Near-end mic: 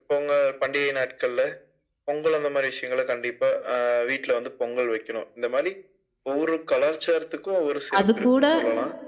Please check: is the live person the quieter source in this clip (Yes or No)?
No